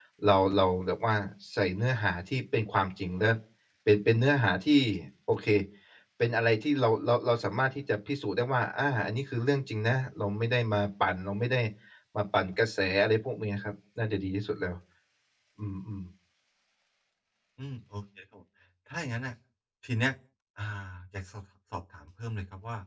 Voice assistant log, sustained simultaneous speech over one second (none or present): none